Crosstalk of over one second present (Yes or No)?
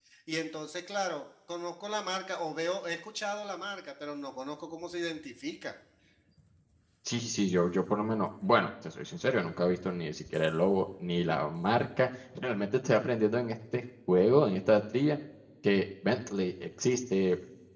No